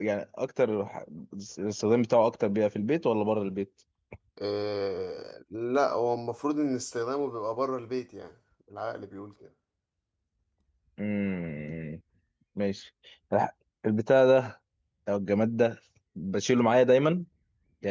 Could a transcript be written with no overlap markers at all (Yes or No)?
Yes